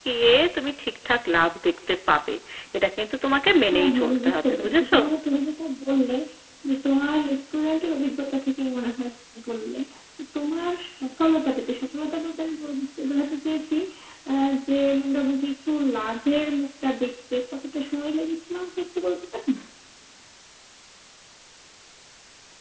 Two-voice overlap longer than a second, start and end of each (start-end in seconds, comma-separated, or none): 3.7-5.0